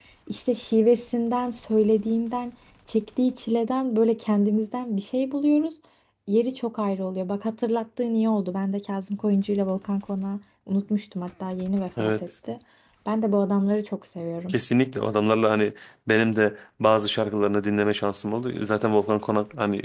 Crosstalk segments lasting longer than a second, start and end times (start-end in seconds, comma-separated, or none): none